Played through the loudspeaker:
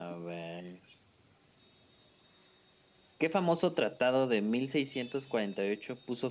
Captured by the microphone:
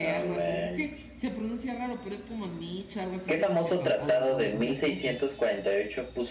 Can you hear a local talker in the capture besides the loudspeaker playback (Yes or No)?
Yes